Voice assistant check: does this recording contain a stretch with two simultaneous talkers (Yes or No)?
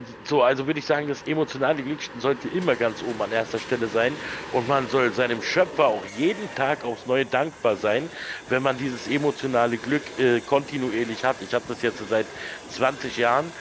No